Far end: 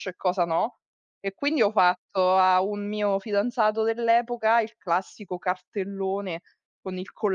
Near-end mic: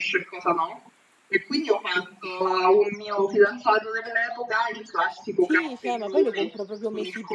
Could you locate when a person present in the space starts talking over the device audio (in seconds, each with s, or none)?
5.4 s